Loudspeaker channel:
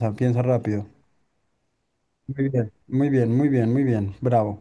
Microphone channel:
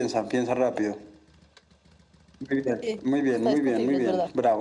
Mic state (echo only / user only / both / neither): both